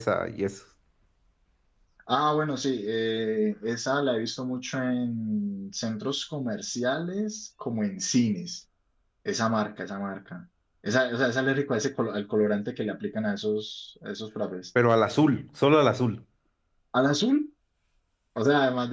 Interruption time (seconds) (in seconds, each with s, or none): none